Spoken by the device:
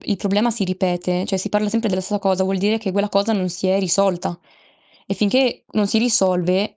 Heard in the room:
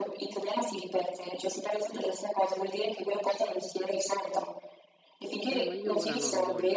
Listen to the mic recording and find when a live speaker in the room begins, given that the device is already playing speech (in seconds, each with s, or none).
5.5 s